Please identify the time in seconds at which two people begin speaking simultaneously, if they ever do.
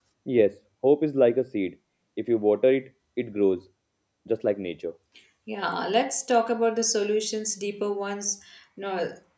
none

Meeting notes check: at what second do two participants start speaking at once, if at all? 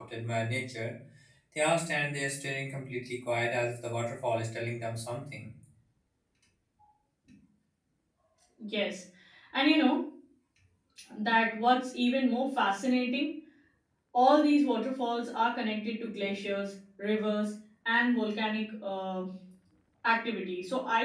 none

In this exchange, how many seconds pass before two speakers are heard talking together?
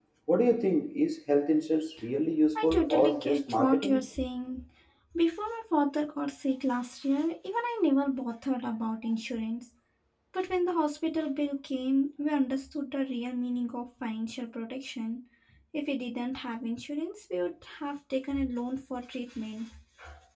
2.5 s

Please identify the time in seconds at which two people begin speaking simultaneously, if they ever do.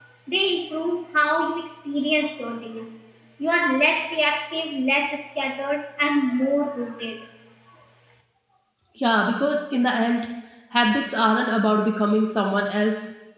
none

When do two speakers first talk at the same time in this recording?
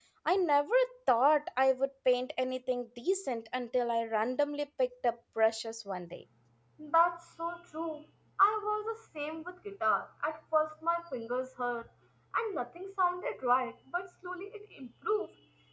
none

